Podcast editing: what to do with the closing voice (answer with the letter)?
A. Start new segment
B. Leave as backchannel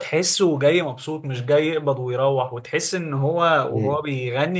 B